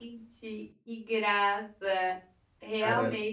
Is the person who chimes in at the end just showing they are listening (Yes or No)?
Yes